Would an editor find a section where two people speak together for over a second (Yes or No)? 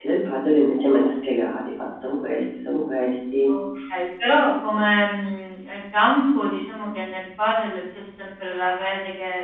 No